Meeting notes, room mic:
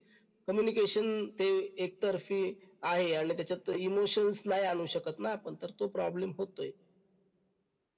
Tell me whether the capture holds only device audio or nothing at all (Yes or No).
Yes